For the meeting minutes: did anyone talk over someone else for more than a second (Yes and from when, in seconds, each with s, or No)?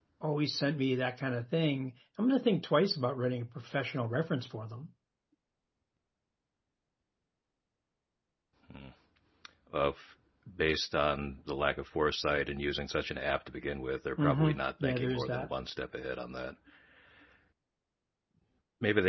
Yes, from 14.2 s